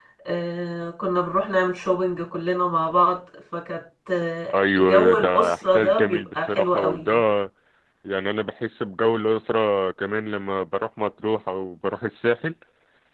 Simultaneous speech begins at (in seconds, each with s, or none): 4.5 s